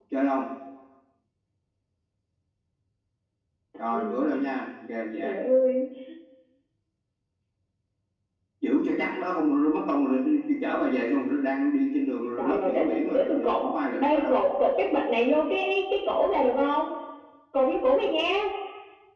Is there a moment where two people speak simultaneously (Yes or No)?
Yes